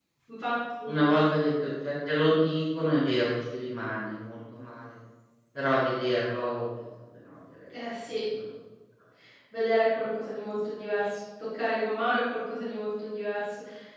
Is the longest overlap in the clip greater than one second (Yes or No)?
No